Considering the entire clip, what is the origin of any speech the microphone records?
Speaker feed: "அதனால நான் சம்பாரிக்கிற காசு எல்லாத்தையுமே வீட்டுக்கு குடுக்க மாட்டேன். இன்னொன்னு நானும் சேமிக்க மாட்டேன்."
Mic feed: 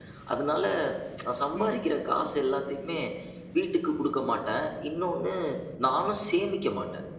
both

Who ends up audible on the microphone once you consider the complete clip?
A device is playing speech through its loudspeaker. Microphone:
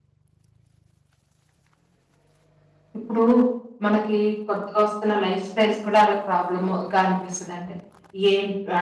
echo only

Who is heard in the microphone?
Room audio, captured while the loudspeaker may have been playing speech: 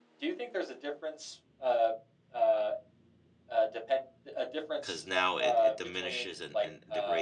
both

